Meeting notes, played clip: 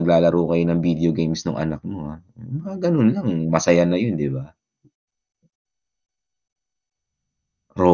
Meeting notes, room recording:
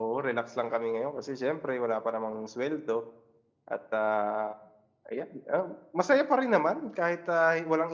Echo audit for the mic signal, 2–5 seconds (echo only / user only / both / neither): user only